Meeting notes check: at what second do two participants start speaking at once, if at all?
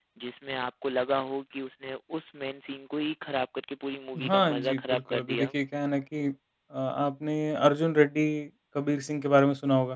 4.2 s

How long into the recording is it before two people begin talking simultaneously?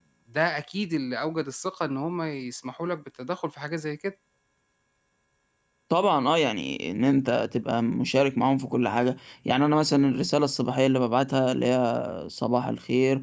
none

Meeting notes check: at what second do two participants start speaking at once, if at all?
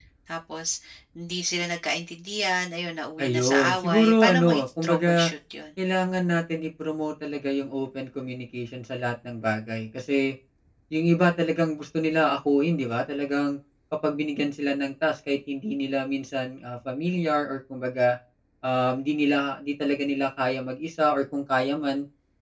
3.2 s

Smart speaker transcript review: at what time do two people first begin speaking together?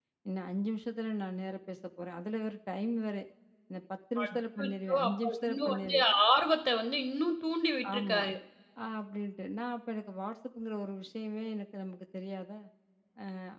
4.2 s

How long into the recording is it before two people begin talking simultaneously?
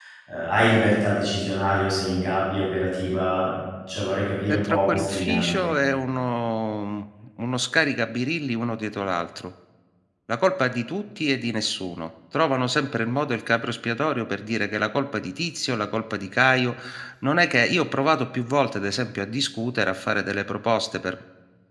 4.5 s

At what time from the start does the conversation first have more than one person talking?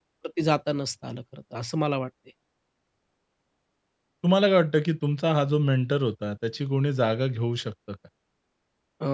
none

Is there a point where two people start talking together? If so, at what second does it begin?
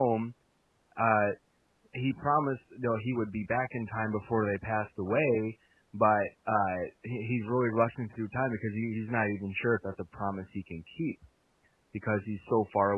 none

